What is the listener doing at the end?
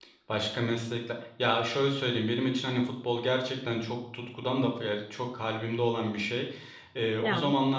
listening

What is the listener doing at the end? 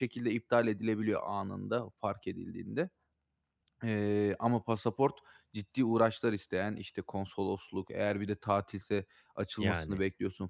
listening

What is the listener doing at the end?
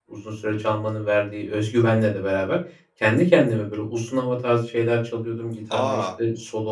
listening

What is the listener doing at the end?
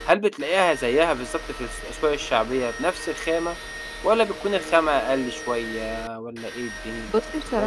taking over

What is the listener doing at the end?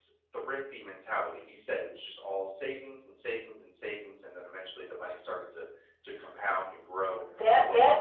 taking over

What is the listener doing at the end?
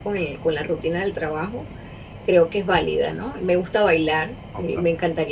listening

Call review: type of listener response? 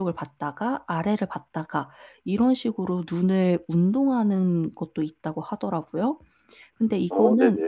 listening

